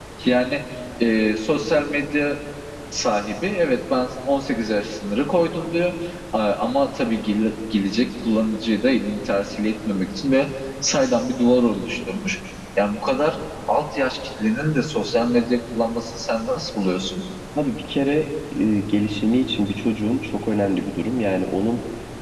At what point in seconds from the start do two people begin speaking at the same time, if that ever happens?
none

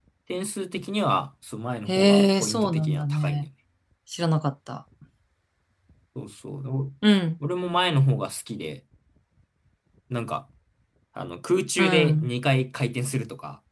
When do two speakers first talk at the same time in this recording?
1.9 s

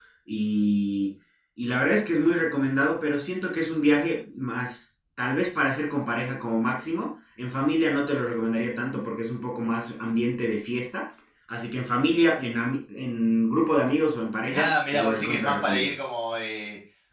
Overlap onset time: 14.4 s

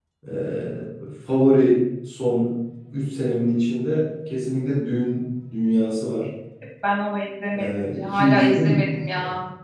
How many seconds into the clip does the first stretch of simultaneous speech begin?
7.5 s

